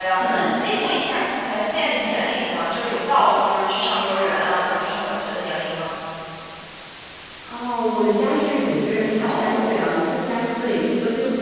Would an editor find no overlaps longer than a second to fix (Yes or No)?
Yes